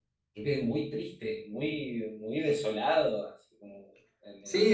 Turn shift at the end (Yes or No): Yes